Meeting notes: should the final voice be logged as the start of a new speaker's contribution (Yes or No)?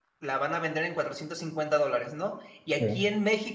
No